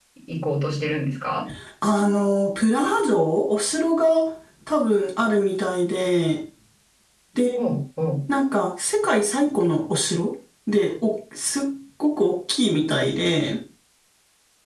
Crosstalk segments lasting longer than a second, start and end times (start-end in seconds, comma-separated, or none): none